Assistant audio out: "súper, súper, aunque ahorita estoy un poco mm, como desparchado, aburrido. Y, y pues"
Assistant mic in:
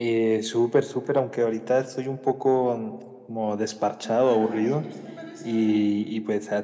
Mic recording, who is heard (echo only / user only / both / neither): both